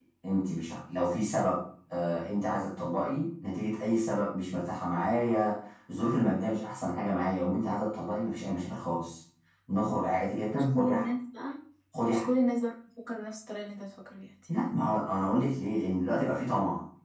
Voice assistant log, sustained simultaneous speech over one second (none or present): none